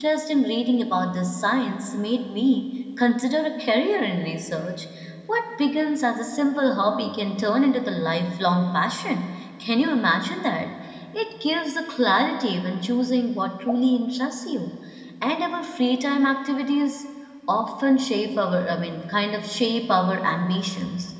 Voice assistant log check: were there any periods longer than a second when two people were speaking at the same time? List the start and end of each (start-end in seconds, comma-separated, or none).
none